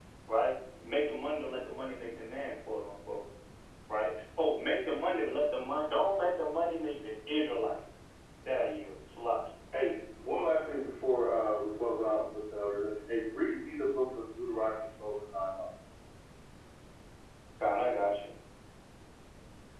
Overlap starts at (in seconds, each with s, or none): none